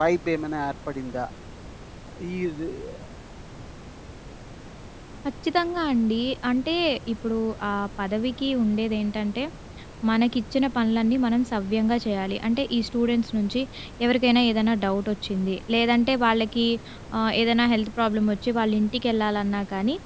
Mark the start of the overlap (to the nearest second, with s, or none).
none